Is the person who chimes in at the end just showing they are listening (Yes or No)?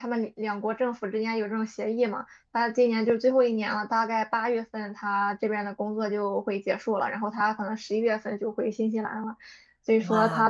Yes